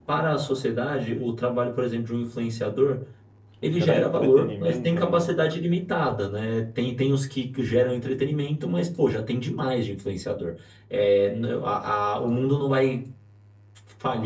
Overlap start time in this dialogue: 3.7 s

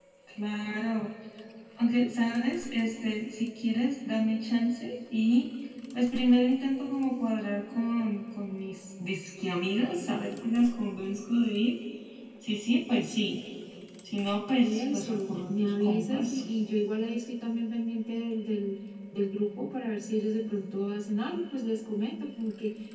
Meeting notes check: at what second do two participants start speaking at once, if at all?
14.6 s

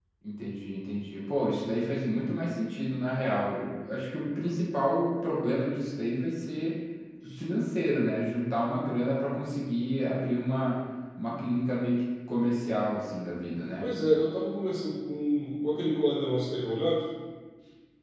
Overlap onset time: none

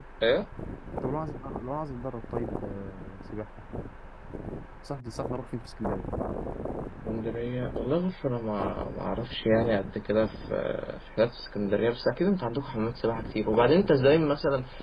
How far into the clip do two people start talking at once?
none

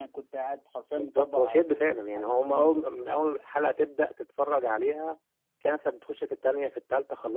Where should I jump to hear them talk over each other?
0.9 s

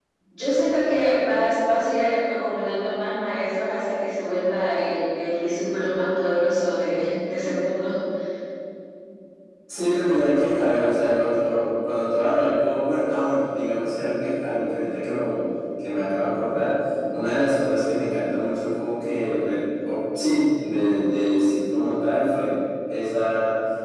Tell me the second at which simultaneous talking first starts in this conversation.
none

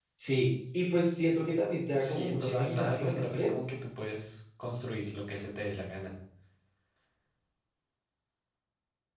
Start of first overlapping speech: 1.9 s

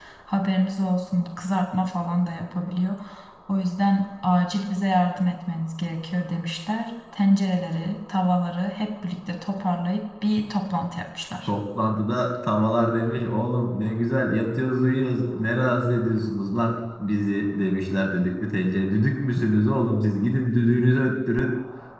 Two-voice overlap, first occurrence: none

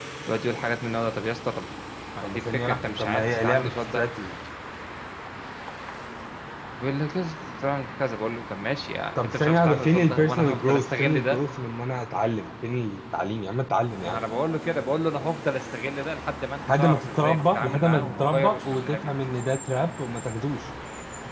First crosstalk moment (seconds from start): 2.2 s

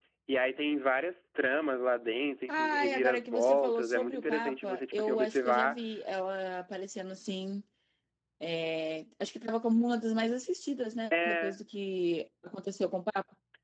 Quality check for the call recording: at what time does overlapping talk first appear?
2.5 s

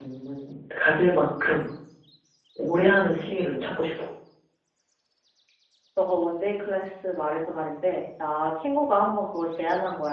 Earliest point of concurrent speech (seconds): none

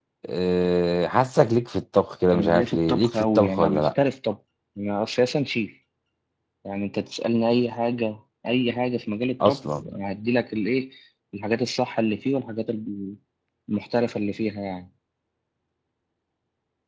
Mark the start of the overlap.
2.3 s

